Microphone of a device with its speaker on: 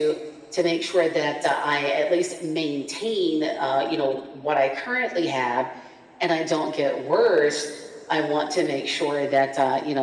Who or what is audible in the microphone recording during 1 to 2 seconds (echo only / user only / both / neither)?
echo only